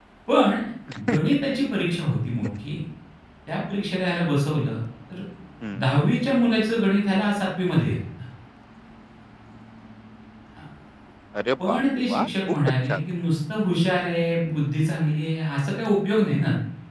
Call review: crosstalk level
present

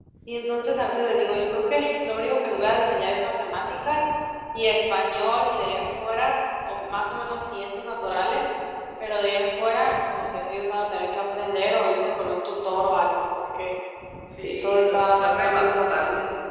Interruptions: present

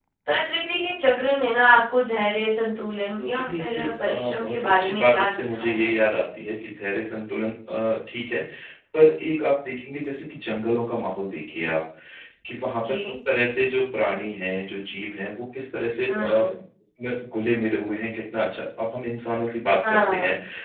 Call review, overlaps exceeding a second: present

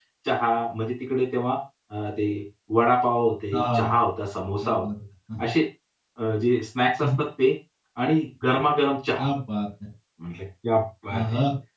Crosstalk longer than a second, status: none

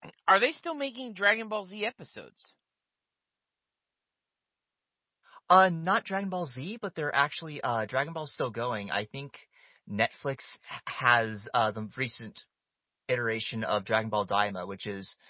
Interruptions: none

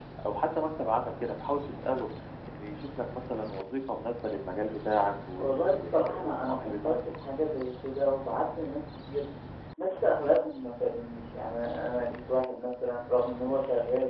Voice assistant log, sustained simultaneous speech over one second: present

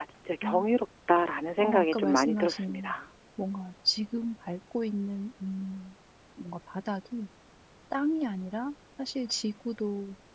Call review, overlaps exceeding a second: present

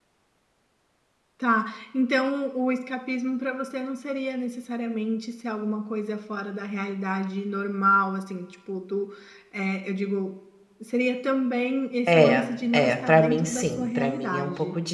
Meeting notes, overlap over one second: present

